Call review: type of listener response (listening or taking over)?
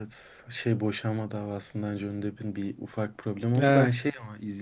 listening